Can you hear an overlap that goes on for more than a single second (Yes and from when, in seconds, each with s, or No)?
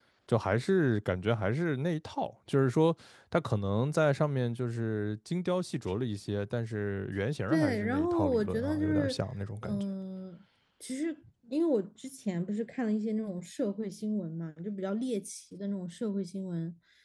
Yes, from 7.5 s